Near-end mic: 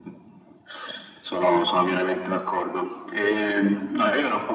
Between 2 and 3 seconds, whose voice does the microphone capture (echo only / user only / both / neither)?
echo only